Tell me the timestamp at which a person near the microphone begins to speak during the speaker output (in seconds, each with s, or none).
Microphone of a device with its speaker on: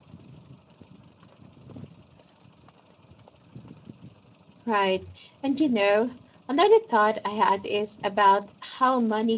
4.6 s